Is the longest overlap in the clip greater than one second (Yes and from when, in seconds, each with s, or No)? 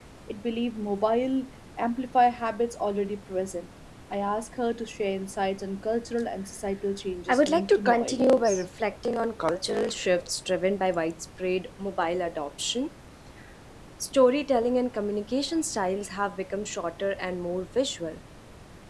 Yes, from 7.1 s